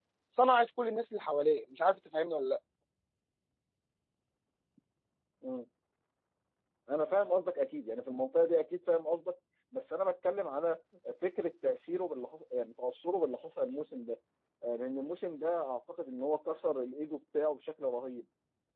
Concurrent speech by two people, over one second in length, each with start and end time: none

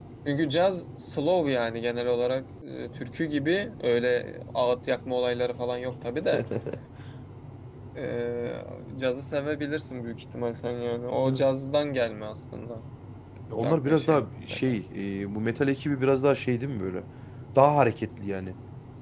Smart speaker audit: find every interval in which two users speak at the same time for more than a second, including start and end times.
13.6-14.8

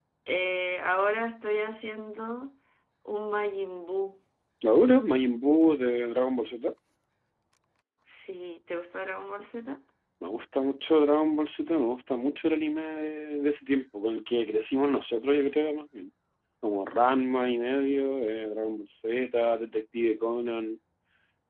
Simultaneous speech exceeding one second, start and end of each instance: none

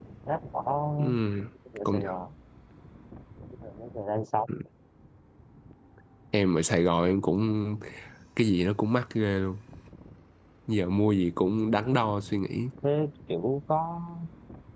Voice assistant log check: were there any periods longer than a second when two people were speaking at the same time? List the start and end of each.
none

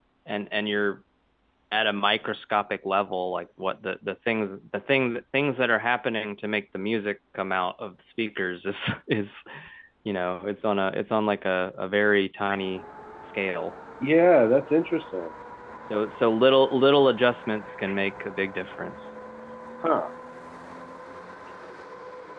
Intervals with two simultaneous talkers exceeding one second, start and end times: none

